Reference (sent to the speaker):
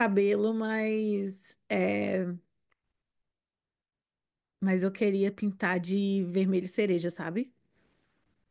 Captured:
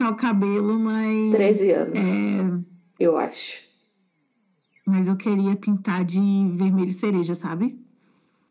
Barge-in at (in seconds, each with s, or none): 1.3 s